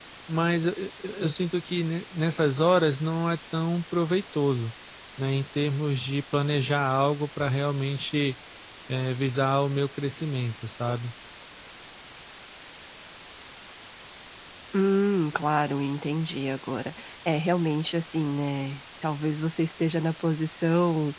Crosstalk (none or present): none